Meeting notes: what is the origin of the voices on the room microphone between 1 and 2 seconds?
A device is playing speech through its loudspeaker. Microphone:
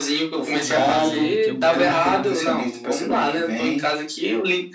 both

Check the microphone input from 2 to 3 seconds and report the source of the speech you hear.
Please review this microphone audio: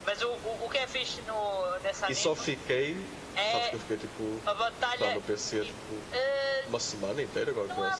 both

